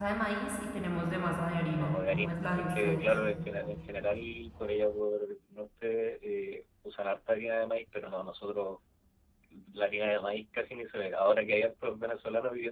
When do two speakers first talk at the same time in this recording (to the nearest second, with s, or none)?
2 s